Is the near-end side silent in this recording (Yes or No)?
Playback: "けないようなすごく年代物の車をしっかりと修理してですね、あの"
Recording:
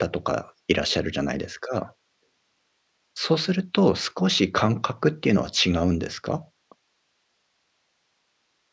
No